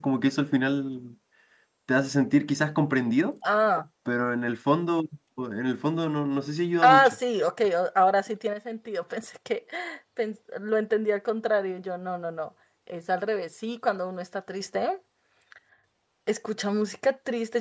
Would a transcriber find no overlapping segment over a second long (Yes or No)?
Yes